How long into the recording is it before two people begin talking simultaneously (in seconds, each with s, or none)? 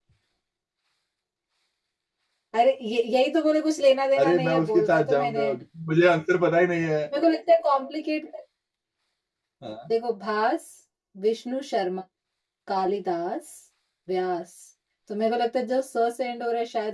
4.2 s